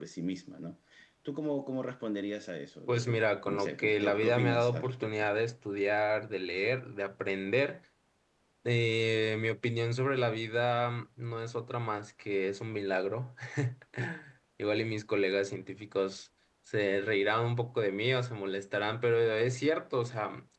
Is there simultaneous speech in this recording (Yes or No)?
Yes